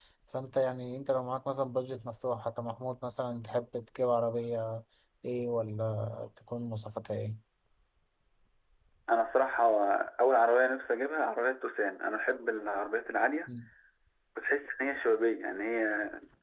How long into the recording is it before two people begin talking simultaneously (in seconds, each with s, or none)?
none